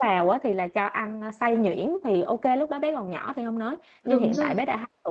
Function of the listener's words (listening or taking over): listening